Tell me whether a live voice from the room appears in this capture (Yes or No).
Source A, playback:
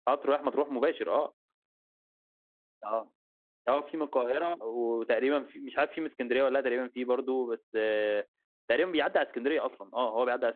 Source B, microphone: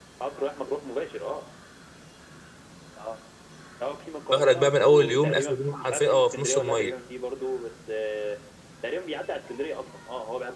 Yes